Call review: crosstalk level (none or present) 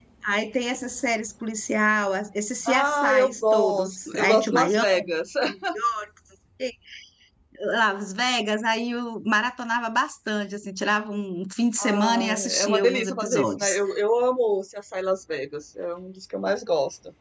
present